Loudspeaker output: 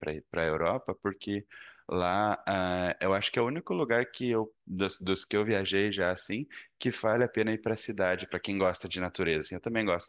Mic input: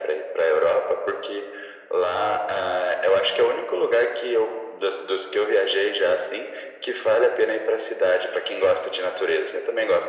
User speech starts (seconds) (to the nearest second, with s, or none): none